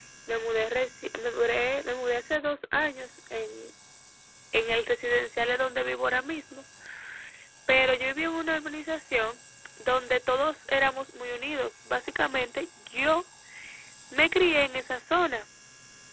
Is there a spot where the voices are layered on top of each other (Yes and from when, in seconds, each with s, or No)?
No